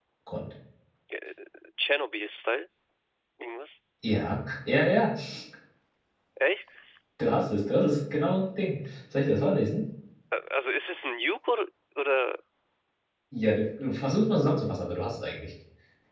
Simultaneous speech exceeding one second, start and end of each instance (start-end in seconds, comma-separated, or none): none